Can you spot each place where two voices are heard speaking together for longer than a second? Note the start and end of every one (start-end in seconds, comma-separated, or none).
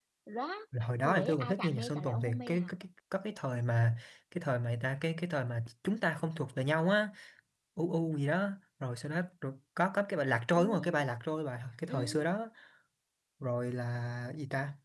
1.0-2.7